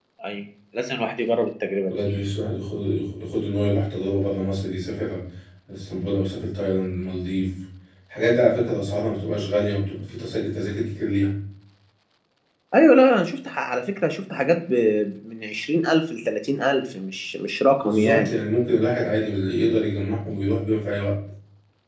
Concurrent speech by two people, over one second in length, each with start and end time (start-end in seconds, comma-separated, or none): none